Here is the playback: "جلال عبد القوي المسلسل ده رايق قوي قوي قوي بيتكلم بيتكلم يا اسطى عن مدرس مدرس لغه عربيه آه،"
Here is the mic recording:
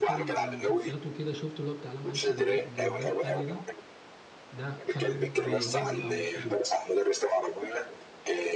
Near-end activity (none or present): present